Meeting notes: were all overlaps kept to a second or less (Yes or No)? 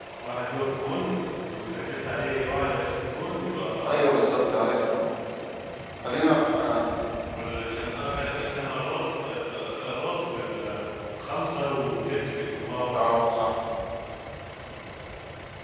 Yes